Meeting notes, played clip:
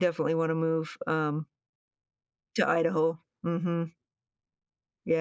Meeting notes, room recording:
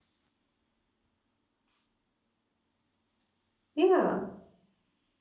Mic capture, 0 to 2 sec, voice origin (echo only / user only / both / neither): neither